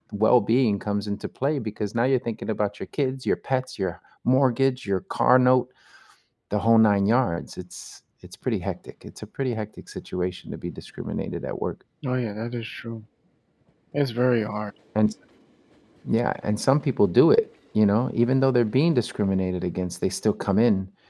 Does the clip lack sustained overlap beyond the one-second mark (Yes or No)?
Yes